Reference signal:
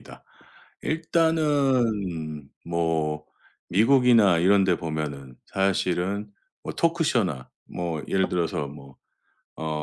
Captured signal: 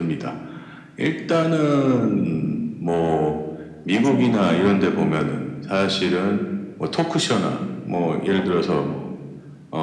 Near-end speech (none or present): present